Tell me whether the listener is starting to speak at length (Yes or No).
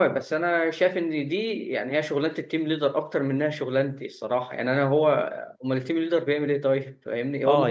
Yes